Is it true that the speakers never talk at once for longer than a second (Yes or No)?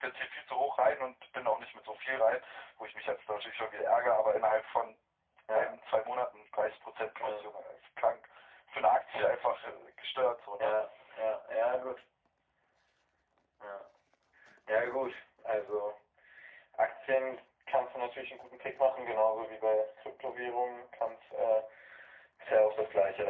Yes